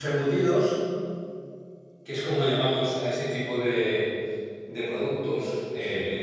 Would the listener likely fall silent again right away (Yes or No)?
Yes